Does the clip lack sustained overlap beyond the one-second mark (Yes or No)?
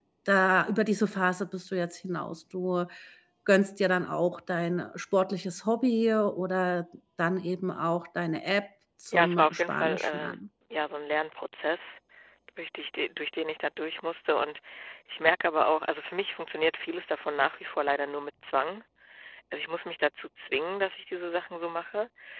No